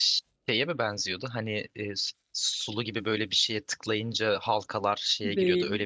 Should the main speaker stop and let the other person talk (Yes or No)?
Yes